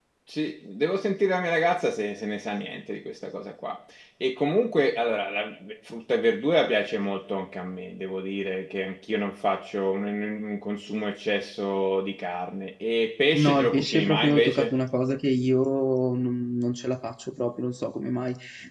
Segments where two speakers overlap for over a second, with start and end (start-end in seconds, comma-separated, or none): 13.4-14.7